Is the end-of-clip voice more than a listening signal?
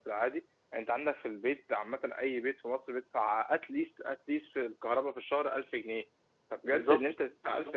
No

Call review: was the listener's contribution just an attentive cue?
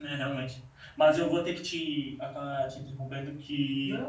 Yes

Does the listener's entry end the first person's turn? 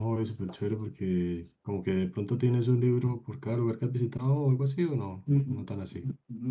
Yes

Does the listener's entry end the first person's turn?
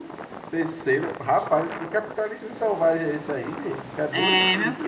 Yes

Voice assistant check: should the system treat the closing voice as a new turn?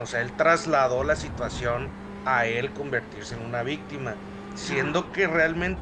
No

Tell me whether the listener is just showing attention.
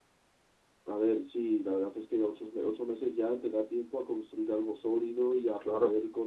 Yes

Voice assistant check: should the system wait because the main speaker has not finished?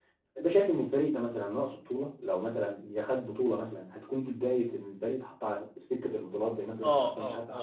No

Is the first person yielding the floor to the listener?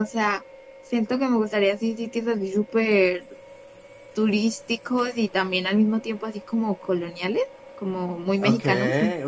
Yes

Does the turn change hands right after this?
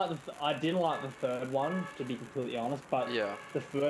No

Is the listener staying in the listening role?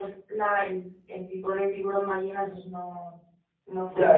No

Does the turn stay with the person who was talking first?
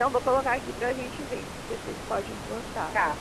No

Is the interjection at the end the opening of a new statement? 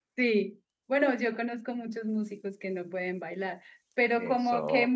No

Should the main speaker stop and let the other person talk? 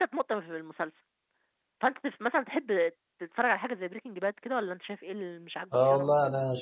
Yes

